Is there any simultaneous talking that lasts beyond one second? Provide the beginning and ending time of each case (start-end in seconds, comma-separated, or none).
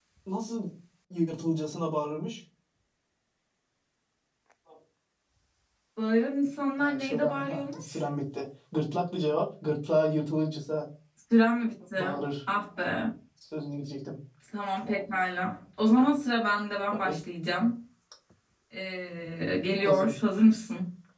6.8-8.0